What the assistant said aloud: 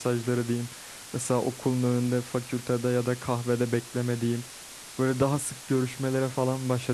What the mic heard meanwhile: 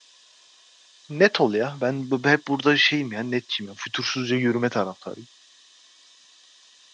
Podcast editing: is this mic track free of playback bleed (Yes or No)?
Yes